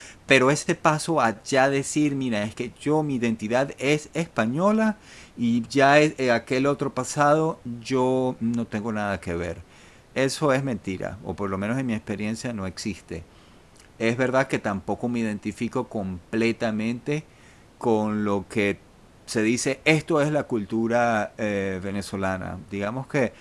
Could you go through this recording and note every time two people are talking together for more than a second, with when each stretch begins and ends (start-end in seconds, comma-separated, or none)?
none